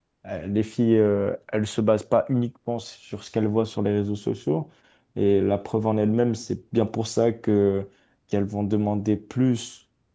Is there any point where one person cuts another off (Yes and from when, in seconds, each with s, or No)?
No